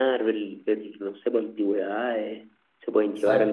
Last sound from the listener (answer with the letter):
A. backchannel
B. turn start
A